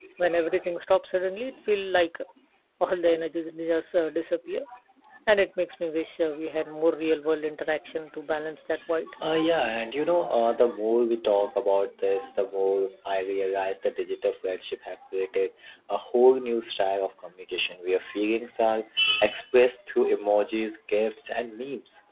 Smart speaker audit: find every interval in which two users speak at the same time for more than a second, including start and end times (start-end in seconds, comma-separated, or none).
none